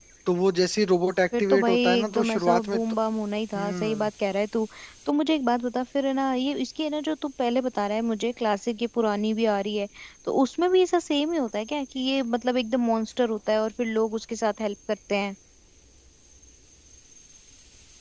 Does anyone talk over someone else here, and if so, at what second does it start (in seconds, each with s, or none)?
1.4 s